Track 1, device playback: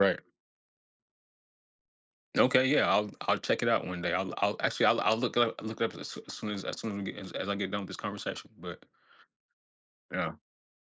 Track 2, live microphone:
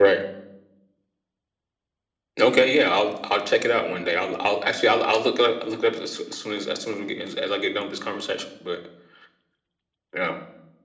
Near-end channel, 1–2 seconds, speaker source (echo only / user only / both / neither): neither